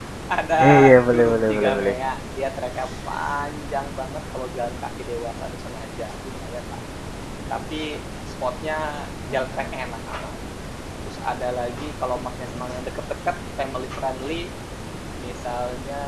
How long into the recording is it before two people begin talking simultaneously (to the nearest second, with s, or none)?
1 s